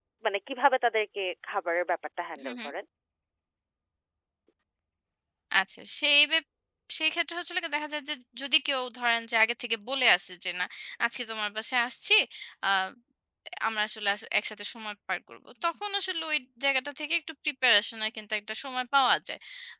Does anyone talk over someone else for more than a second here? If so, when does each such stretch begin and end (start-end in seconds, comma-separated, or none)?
none